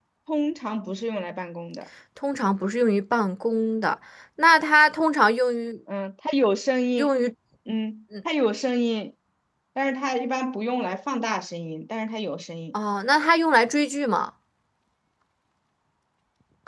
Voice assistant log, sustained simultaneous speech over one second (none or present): none